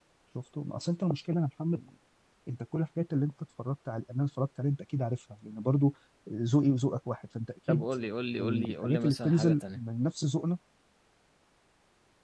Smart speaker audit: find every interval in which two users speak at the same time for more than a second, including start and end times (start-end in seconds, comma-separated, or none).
8.4-9.8